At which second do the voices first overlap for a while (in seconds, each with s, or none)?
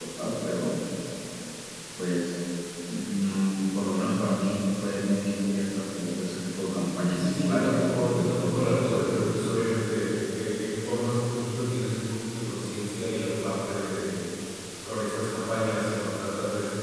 7.2 s